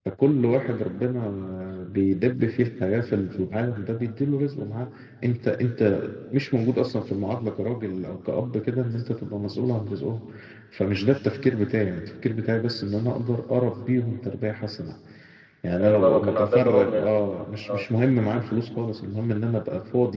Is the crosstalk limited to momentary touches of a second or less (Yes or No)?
No